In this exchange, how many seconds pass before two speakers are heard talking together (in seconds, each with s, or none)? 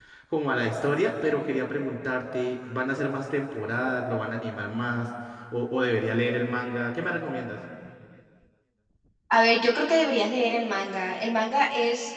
none